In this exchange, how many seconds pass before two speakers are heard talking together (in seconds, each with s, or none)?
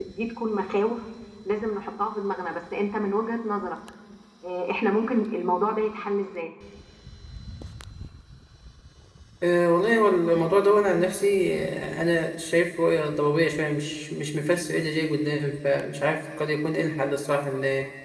none